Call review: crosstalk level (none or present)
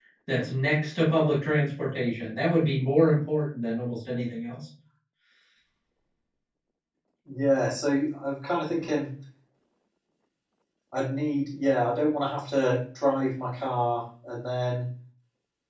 none